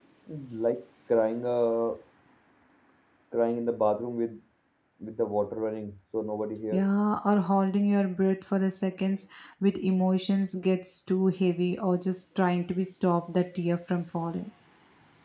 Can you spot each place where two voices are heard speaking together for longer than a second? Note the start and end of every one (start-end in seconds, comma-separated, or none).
none